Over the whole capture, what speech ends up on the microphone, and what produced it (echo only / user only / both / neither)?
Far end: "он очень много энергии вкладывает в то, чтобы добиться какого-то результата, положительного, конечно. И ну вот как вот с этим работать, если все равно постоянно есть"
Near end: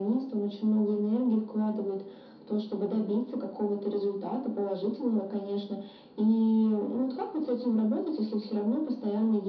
echo only